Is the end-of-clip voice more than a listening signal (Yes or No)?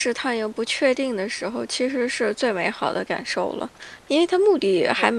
No